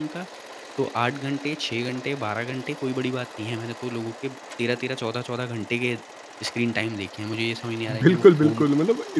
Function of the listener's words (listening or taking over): taking over